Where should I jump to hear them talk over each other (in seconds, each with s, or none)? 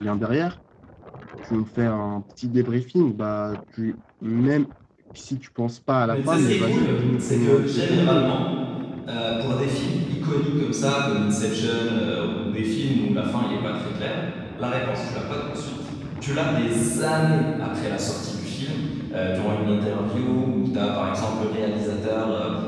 6.0 s